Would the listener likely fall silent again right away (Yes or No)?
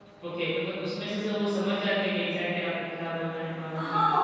No